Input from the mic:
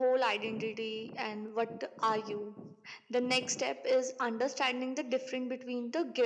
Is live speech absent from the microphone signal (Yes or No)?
Yes